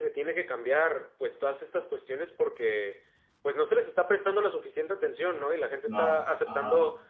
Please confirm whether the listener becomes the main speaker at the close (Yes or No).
No